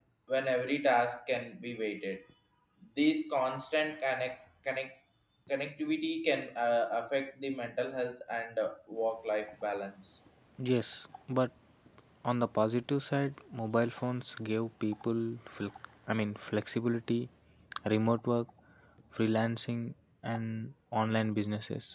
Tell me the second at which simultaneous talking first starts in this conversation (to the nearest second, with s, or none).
none